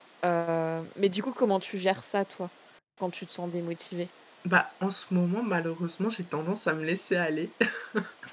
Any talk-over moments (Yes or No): No